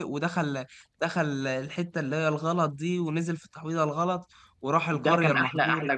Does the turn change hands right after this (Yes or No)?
Yes